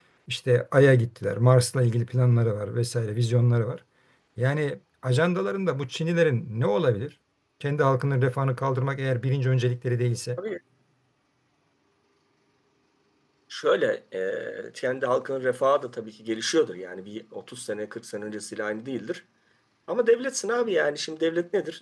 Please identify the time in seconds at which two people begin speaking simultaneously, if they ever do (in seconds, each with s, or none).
none